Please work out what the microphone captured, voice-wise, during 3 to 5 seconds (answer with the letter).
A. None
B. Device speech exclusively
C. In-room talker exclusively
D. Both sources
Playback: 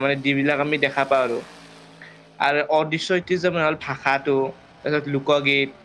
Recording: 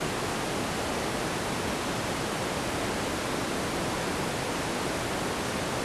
A